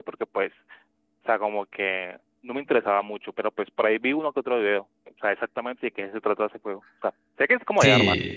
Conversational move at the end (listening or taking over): taking over